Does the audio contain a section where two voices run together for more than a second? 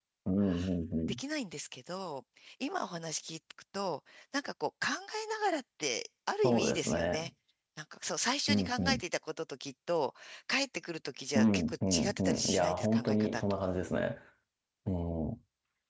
Yes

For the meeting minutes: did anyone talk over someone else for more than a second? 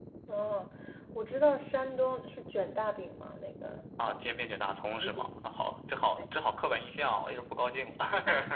No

